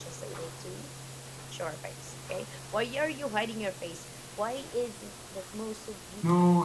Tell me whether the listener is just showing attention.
No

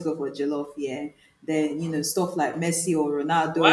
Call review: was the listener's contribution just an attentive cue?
No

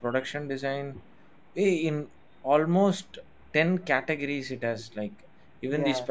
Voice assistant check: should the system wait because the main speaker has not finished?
Yes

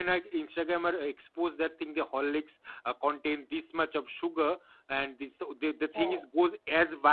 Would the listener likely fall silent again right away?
Yes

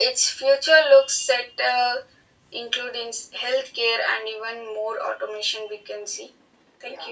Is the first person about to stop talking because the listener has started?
Yes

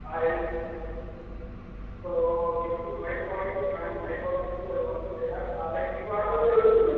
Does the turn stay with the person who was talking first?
No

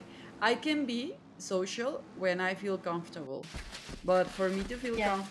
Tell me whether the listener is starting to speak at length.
No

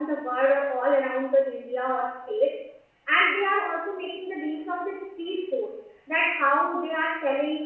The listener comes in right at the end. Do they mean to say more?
No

